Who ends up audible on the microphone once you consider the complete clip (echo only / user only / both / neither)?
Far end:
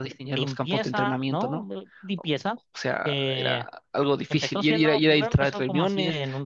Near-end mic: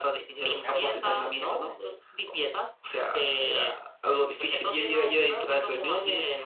both